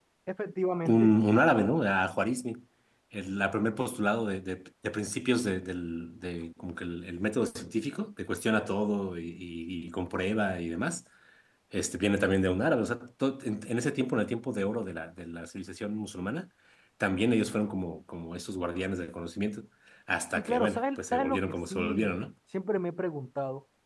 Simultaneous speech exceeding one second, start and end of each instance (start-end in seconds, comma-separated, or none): 20.4-22.1